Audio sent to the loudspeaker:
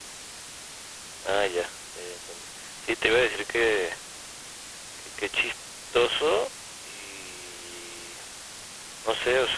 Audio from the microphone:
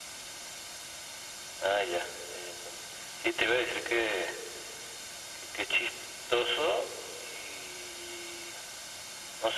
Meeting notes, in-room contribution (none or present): none